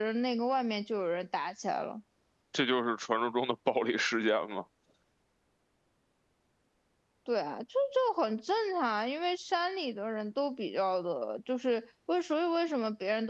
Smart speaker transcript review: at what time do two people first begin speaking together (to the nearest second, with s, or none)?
none